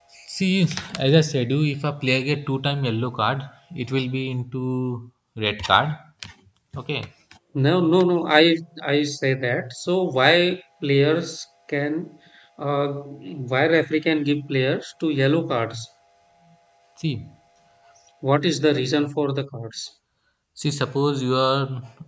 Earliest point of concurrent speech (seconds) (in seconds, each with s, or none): none